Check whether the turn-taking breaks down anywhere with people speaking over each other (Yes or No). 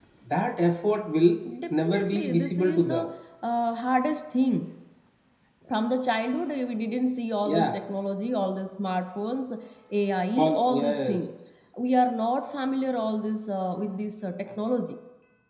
Yes